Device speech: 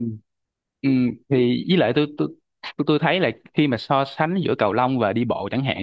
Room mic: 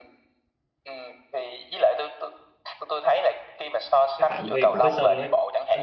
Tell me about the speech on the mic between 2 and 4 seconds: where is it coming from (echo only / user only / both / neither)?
echo only